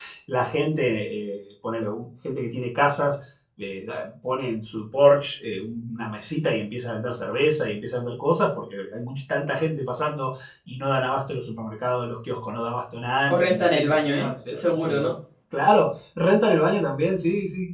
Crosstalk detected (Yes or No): Yes